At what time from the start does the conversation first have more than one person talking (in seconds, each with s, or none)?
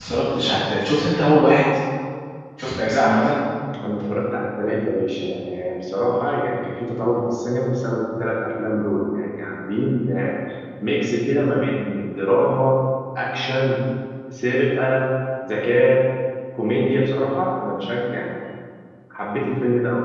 none